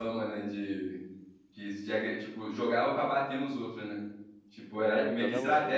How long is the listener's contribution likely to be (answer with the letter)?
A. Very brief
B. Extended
B